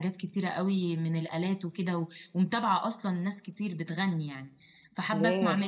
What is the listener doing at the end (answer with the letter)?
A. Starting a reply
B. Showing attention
B